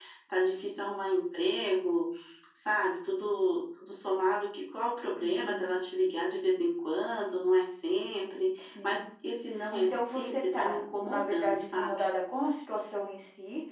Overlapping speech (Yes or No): Yes